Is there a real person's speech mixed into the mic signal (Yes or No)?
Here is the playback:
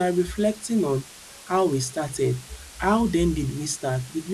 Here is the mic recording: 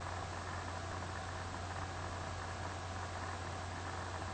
No